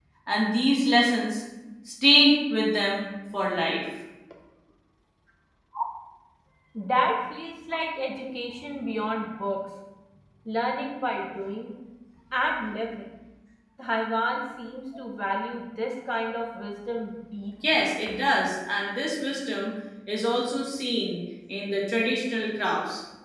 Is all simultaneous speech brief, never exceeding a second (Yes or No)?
Yes